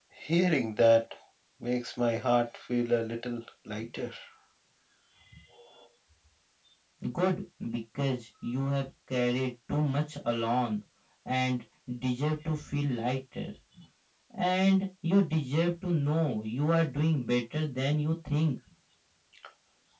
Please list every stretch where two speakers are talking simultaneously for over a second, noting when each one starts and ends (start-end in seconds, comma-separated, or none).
none